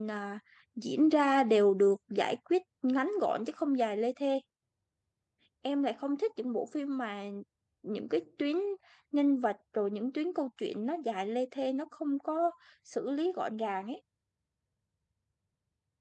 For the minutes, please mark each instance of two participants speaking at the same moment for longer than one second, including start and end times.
none

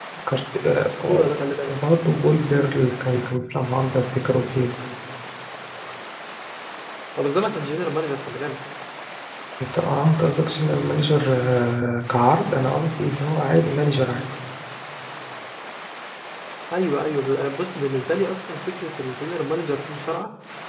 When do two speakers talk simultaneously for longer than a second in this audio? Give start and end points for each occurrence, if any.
none

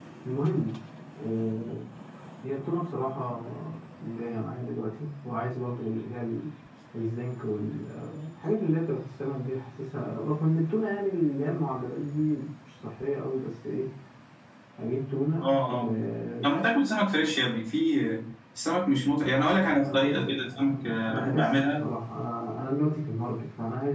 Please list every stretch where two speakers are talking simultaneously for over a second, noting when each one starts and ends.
19.1-21.8

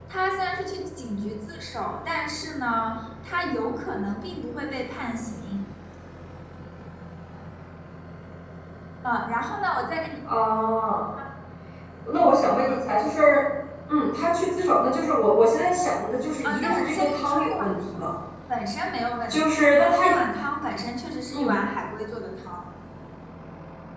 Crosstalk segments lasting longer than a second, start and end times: 16.4-18.1

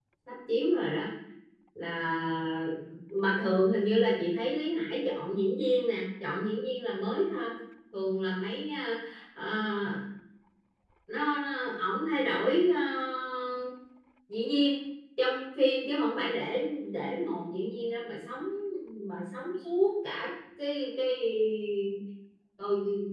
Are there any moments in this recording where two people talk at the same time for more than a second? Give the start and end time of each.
none

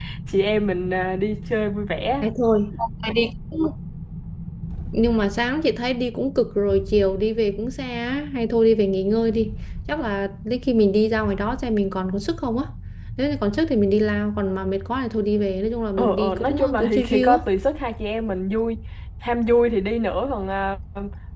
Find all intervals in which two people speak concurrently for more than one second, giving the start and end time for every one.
16.0-17.4

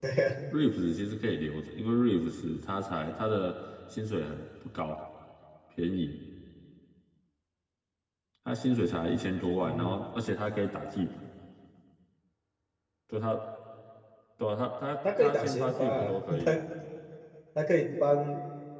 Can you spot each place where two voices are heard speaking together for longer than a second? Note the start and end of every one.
15.2-16.5

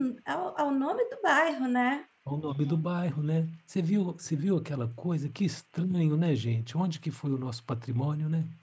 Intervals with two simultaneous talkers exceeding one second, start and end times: none

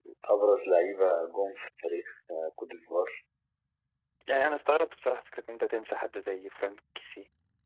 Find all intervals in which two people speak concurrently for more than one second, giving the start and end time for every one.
none

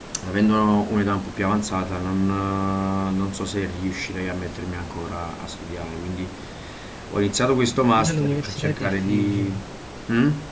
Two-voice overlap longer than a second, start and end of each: 8.0-9.5

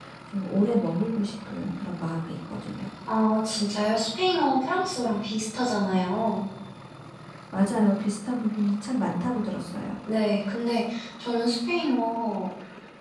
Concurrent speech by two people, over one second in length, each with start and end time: none

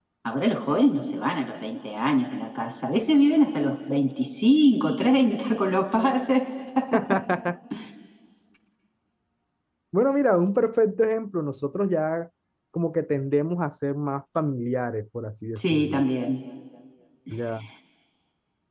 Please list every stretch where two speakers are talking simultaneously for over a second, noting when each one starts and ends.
none

